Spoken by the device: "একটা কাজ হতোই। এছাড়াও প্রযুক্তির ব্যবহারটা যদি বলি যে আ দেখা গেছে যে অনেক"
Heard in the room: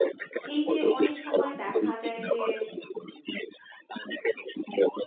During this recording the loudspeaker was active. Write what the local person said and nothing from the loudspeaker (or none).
এই যে অনেক সময় দেখা যায় যে